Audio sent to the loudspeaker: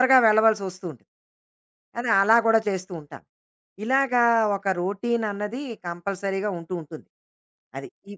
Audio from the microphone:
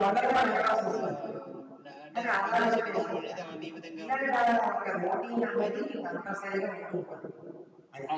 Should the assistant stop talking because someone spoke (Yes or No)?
Yes